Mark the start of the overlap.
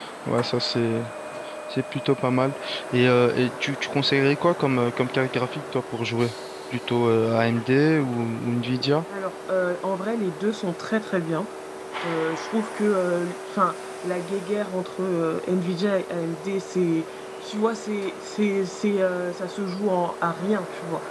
none

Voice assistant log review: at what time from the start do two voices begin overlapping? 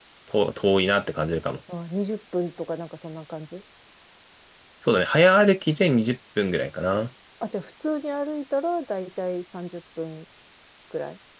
none

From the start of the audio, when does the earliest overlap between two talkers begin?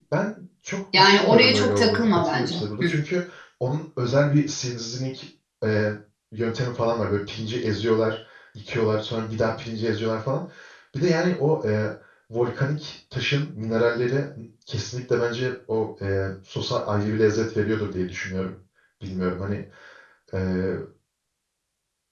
1.0 s

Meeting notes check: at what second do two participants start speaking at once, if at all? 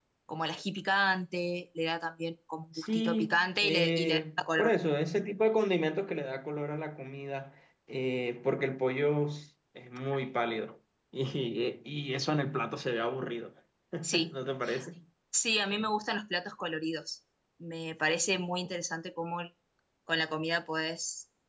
2.7 s

